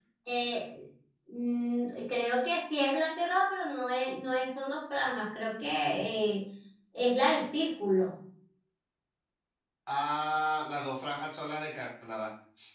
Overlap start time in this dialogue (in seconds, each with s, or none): none